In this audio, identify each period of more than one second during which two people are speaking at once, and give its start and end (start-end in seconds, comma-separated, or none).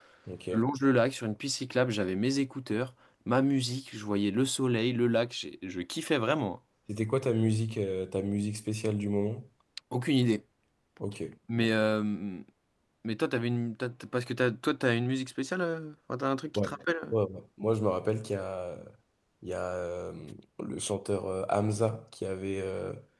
none